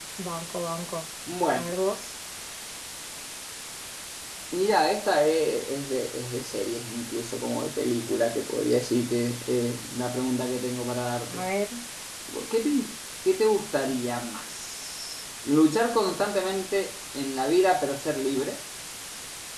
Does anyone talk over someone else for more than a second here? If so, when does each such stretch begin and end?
none

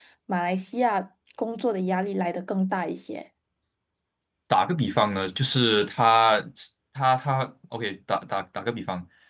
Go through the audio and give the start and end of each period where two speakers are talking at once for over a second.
none

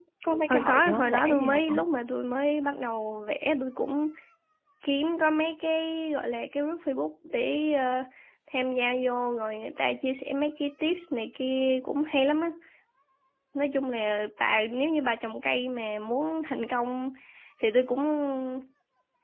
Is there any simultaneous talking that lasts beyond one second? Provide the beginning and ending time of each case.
0.5-1.8

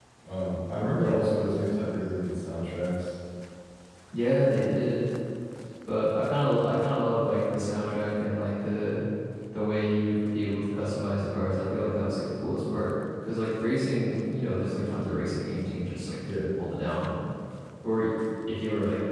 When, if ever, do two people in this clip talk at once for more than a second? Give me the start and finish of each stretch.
none

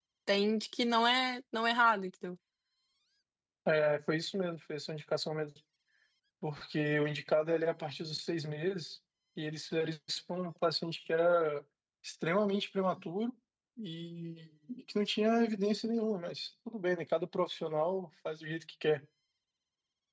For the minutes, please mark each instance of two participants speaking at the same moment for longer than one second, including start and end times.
none

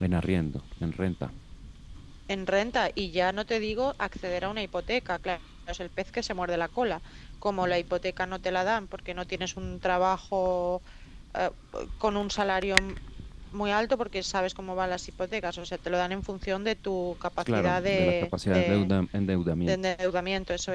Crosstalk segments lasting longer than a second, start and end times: 17.4-18.9

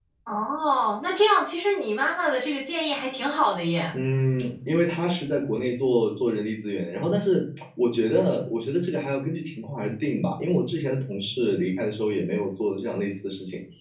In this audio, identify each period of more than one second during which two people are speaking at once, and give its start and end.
none

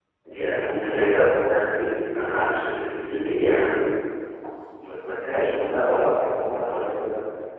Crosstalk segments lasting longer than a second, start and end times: none

